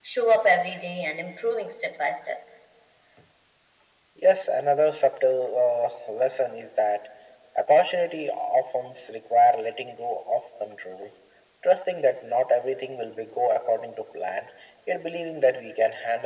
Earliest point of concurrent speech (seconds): none

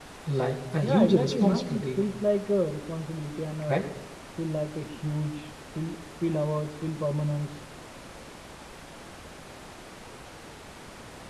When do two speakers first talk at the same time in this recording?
0.8 s

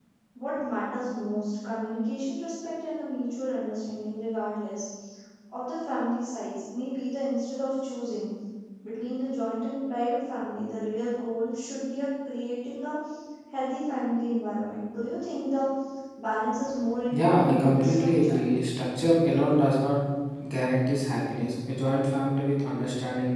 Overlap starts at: 17.1 s

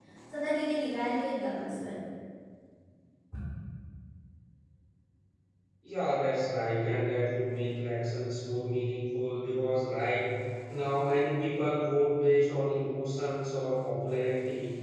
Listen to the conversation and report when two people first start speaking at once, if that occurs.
none

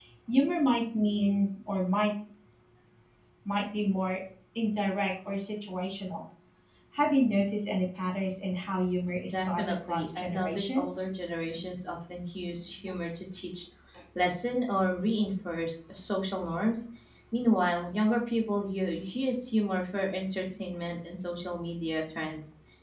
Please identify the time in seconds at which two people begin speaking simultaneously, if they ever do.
9.3 s

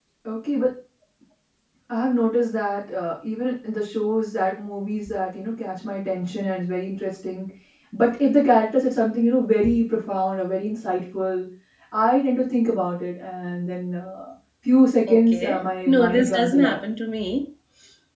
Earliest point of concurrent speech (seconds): 15.1 s

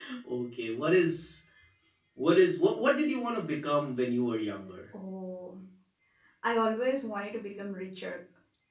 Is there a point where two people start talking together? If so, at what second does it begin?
none

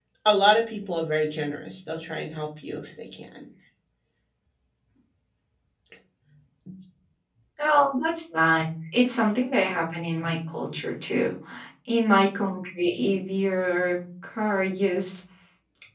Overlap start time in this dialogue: none

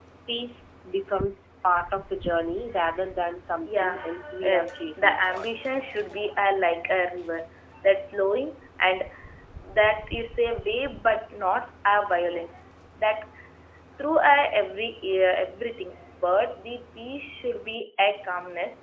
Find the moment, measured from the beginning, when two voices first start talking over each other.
3.6 s

